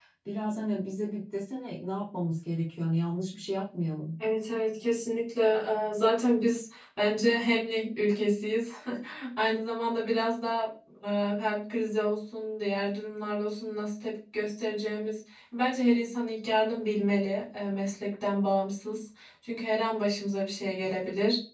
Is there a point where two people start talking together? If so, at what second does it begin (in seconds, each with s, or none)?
none